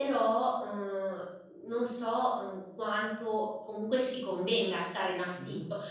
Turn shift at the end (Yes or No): No